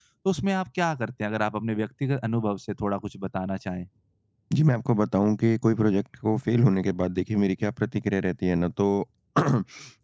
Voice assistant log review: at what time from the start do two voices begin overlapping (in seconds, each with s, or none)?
none